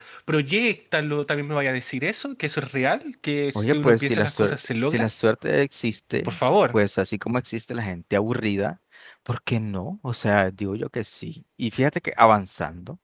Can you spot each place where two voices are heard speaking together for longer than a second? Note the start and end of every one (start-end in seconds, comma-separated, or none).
3.5-5.1